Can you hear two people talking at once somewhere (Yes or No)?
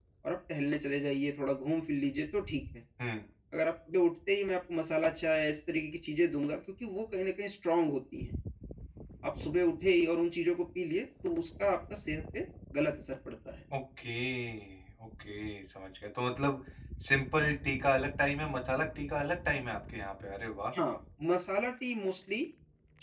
No